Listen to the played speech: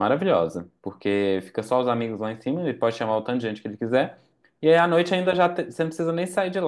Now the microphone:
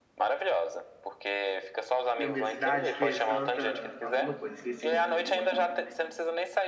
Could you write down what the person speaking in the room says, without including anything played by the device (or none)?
na minha cidade que é Santa alguma coisa, esqueci o outro, o outro nome.